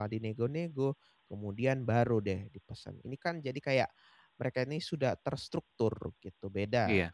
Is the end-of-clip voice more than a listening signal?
No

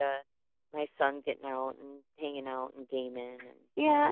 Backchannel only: No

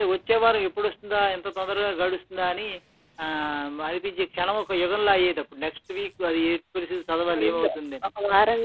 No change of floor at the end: No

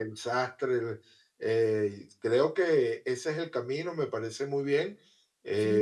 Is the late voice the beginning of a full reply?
Yes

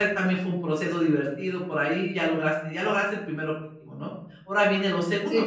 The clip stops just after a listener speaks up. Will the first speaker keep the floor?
No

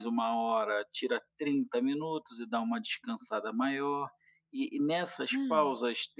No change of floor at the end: Yes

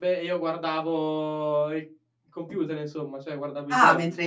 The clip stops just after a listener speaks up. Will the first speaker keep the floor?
No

